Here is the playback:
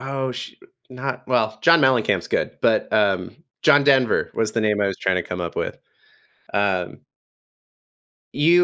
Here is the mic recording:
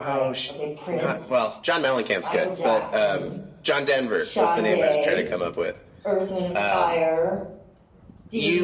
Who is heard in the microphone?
both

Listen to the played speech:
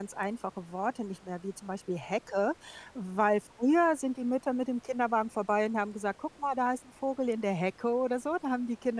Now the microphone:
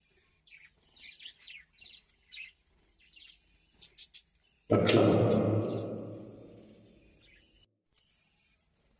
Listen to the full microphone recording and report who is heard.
user only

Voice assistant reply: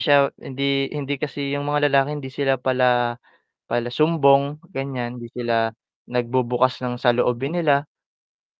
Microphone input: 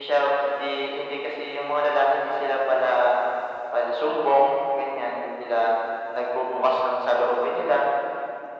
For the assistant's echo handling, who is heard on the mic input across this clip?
echo only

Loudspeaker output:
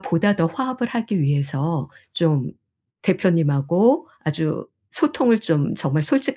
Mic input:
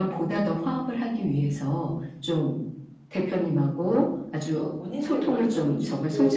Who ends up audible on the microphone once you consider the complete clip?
both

